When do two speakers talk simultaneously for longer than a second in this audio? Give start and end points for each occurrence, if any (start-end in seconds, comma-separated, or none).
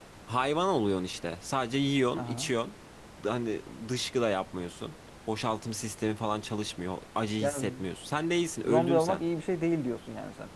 none